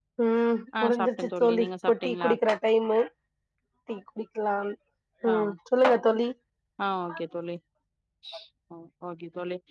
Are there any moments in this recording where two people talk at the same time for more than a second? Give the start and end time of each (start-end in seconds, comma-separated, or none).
0.8-2.3